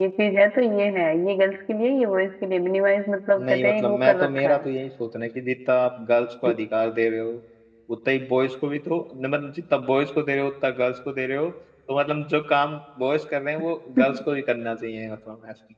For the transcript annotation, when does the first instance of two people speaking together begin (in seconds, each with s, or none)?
3.4 s